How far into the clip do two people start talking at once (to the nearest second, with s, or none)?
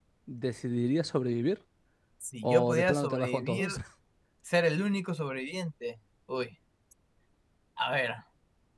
2 s